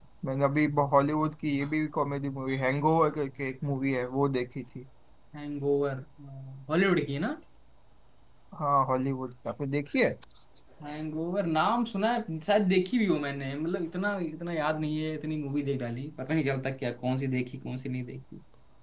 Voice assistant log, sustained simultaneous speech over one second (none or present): none